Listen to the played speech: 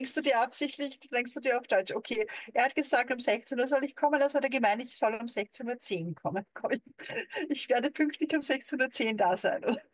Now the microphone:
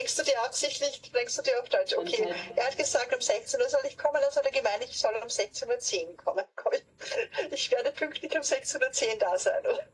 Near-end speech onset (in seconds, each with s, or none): 1.9 s